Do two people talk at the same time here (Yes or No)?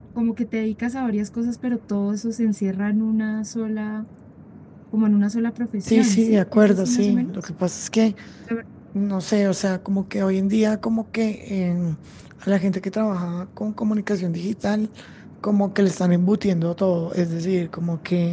Yes